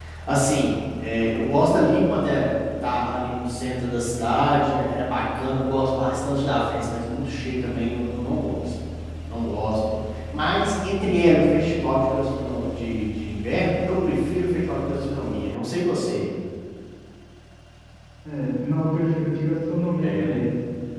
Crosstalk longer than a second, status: none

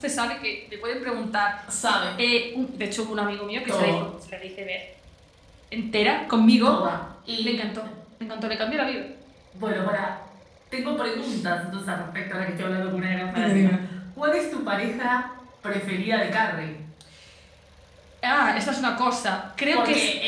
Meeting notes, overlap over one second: none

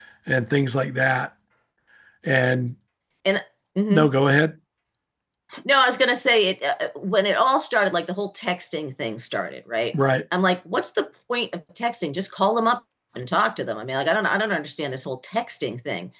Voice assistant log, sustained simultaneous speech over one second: none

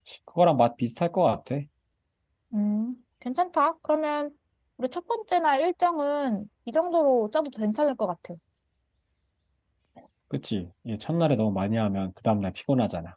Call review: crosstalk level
none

